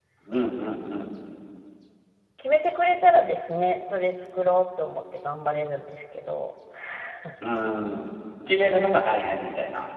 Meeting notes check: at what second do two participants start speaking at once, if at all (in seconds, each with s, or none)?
none